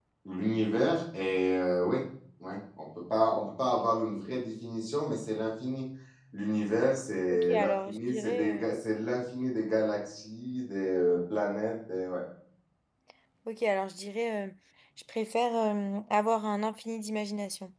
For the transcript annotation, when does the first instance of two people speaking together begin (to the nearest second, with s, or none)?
7 s